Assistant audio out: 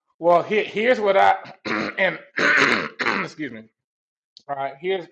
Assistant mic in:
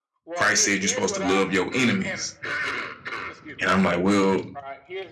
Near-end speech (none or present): present